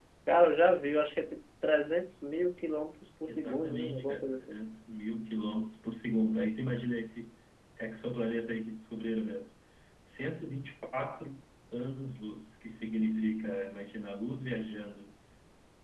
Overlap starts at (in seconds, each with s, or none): 3.2 s